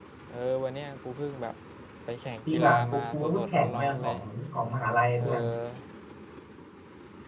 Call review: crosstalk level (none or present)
present